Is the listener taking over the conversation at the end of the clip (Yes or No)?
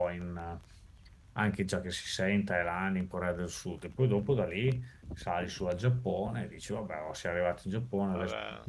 No